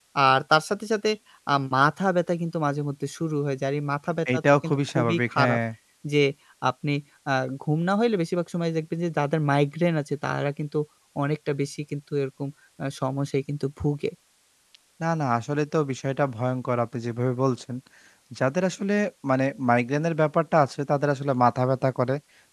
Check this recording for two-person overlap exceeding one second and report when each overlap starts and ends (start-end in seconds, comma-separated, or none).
4.3-5.6